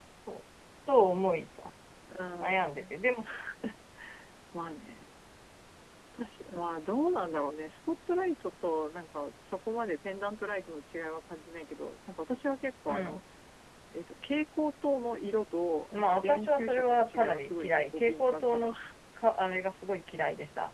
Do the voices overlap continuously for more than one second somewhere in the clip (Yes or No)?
Yes